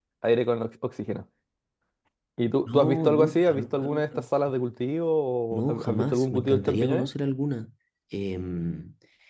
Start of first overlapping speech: 2.7 s

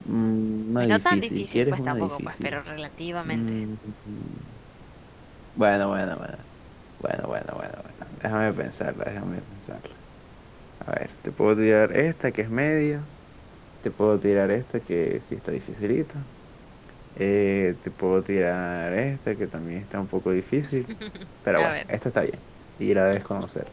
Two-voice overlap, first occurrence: 0.8 s

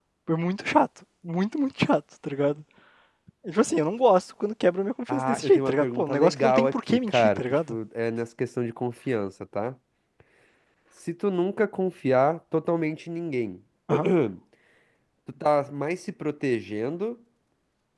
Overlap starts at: 5.1 s

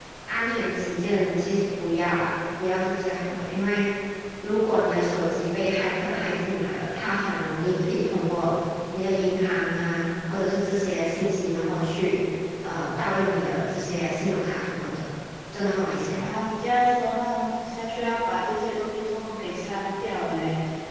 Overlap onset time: none

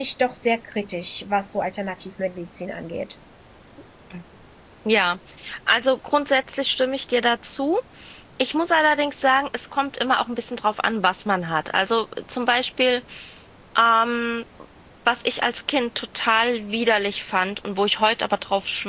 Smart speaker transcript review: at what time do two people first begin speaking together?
none

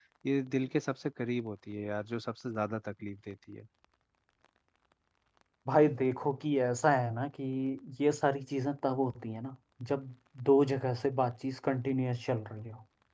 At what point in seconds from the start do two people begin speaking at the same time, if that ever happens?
none

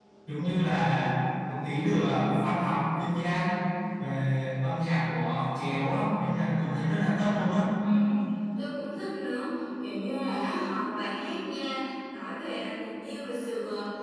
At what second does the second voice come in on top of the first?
none

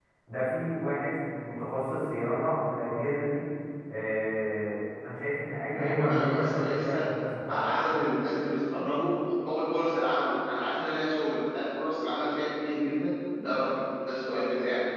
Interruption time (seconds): 5.7 s

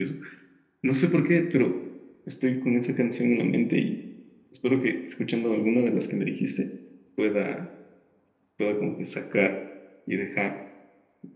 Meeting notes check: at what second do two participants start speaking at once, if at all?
none

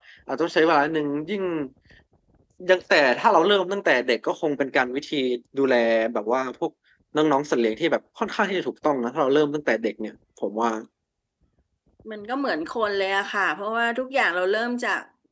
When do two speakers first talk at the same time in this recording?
none

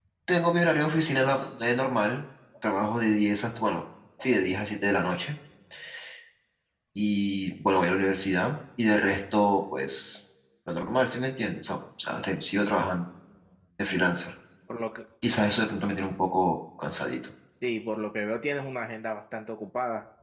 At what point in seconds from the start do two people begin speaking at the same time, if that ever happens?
none

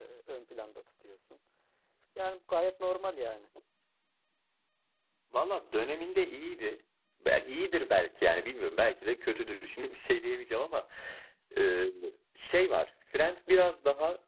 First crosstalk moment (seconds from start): none

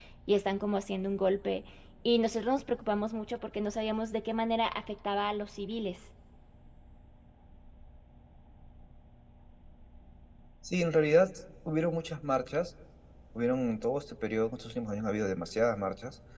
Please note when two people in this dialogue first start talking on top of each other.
none

